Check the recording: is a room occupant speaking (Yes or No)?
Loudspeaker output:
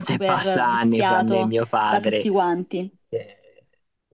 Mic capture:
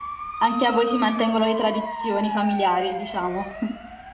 Yes